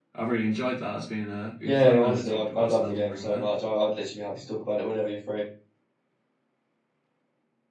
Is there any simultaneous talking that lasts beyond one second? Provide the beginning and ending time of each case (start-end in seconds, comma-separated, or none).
1.6-3.5